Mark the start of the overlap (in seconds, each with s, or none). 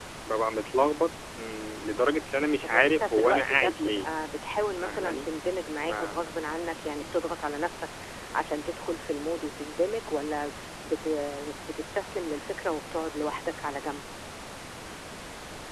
2.6 s